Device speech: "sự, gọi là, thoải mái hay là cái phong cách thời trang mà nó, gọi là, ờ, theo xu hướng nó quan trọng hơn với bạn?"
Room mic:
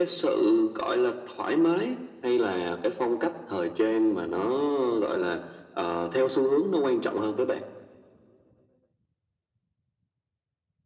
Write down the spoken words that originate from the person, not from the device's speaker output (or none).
none